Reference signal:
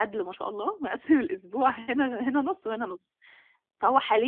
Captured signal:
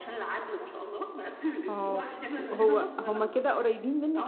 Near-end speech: present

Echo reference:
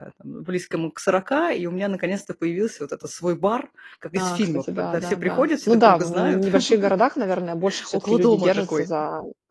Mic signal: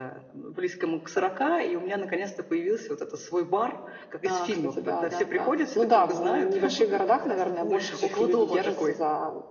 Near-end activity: present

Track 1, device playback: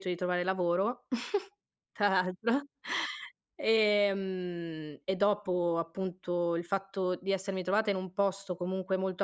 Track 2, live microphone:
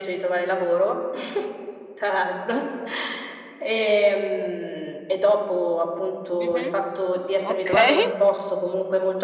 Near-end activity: present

